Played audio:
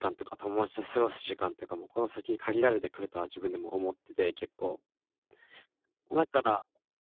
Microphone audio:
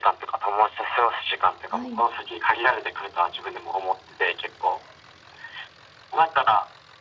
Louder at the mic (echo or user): echo